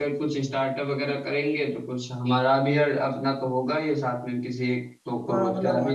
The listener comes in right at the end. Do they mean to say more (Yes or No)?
Yes